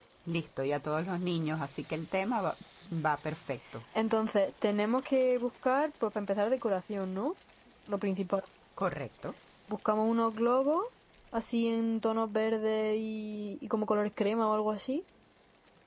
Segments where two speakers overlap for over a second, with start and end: none

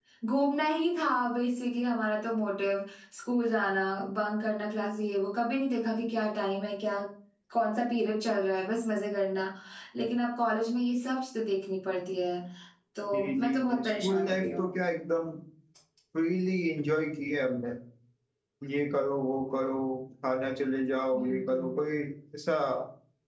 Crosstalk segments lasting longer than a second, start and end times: 13.1-14.7

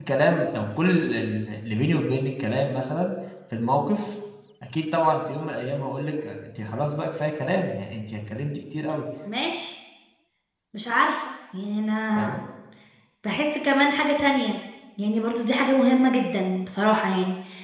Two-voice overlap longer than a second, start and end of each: none

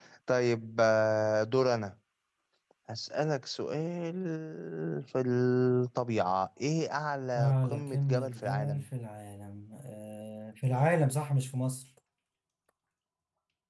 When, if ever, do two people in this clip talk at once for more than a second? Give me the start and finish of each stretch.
7.4-8.8

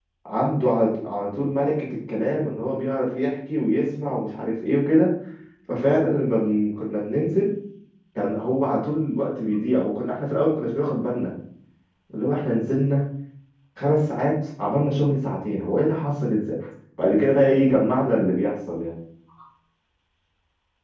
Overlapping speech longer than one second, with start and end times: none

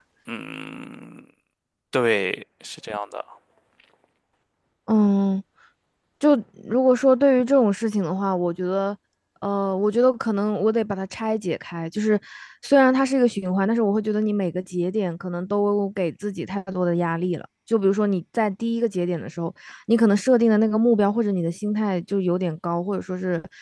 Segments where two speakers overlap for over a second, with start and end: none

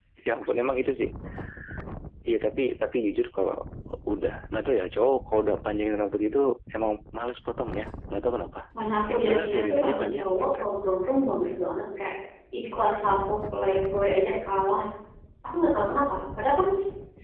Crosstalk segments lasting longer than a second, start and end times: 9.1-10.5

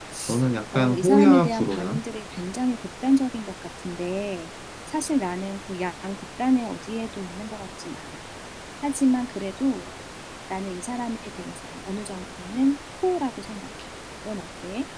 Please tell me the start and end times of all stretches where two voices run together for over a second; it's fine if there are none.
0.7-2.0

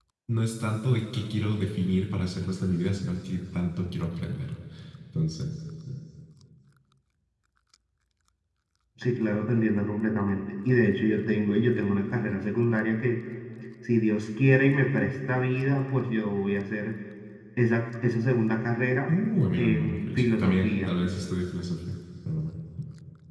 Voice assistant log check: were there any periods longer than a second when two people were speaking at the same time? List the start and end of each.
19.6-20.9

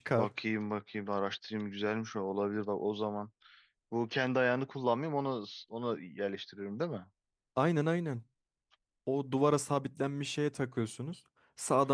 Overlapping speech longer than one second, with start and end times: none

